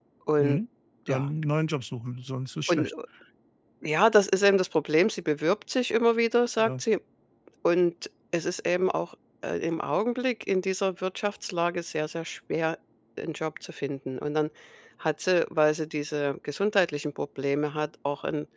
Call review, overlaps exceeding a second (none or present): none